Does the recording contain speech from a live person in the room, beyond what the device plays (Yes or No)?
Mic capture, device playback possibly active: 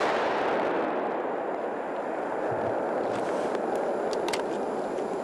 No